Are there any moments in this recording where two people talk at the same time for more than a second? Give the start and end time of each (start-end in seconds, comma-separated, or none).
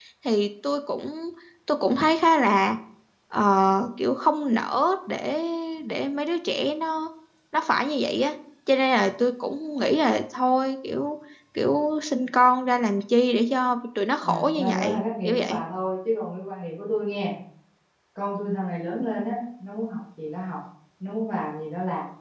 14.2-15.6